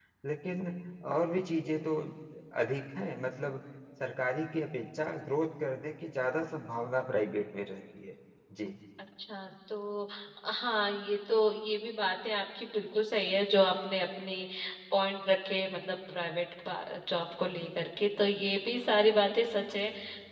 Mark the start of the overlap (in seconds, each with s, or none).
none